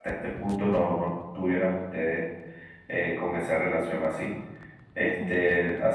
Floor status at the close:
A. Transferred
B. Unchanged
B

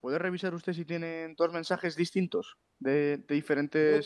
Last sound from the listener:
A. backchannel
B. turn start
B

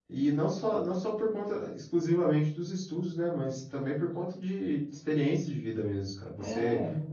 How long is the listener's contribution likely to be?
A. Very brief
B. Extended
A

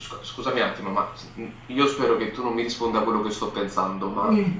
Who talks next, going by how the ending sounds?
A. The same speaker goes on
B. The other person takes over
A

